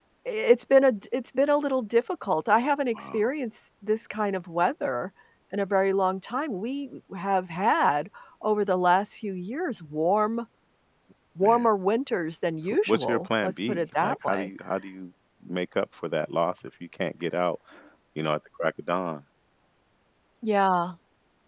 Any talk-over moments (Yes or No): Yes